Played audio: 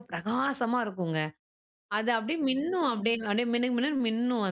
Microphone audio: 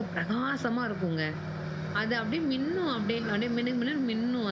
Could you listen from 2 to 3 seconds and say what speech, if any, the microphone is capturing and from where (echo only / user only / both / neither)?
echo only